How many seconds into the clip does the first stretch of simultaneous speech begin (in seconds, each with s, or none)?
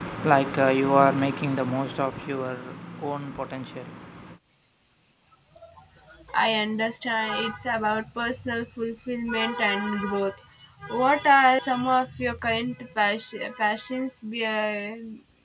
none